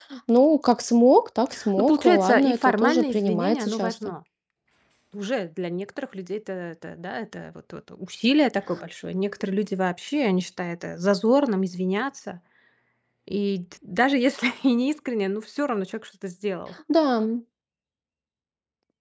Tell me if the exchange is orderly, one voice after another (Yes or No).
No